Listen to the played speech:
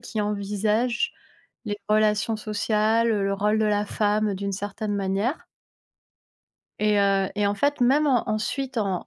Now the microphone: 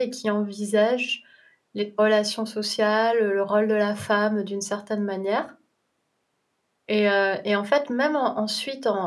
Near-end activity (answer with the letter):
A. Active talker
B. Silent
B